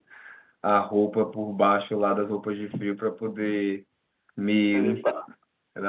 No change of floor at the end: Yes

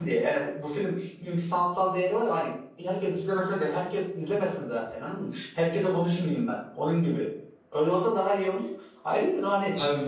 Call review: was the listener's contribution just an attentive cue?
No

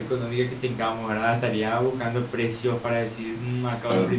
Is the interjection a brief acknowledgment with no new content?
Yes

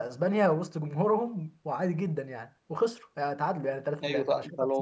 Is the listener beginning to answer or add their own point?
Yes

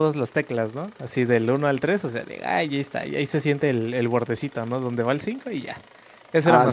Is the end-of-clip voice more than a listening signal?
Yes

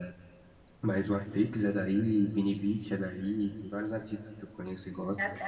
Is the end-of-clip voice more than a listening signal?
Yes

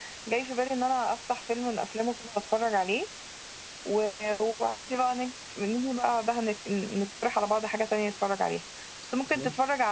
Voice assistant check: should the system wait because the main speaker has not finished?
Yes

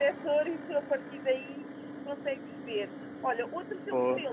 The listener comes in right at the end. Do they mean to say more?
No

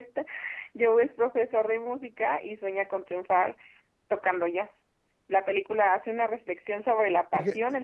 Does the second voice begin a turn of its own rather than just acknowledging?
No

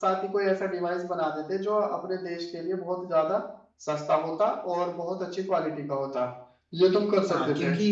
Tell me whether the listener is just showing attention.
No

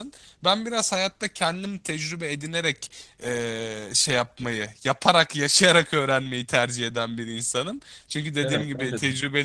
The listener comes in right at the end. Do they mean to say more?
No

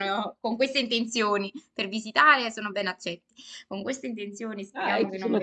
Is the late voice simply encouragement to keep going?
No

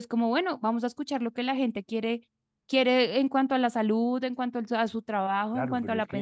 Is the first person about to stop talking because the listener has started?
Yes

